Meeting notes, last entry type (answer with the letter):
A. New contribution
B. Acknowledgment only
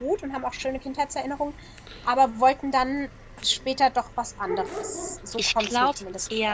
A